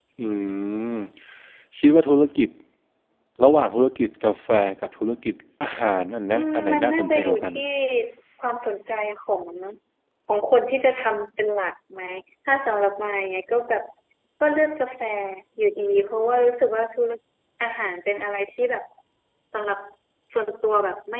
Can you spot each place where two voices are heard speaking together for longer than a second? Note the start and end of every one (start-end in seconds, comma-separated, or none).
6.3-7.5